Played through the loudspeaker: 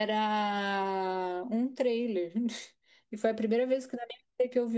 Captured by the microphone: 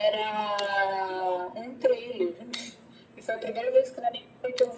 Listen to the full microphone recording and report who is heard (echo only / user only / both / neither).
echo only